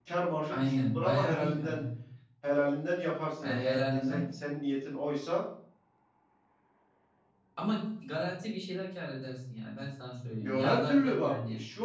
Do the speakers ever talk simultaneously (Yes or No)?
Yes